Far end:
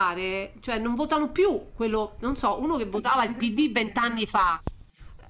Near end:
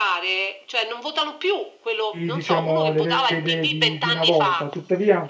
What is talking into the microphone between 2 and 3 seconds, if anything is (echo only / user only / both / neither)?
both